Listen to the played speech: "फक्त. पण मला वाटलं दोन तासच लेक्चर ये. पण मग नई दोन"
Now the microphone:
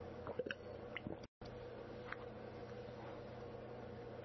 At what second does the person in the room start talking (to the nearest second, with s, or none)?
none